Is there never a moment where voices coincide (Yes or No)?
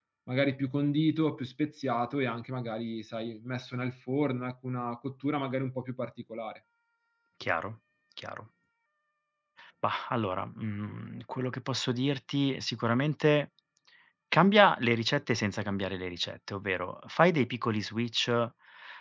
Yes